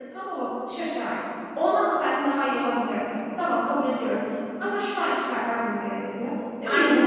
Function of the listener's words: listening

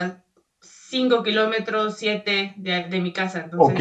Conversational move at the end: taking over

